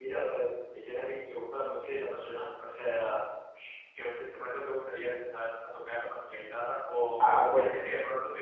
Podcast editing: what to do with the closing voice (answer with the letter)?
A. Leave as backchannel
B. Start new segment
A